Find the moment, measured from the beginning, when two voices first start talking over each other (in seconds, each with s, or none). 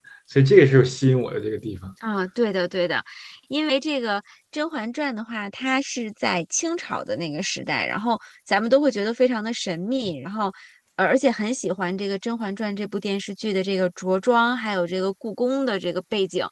none